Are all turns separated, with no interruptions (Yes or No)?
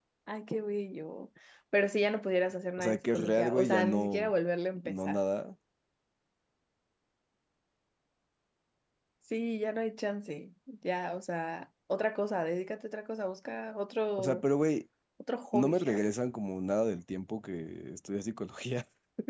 No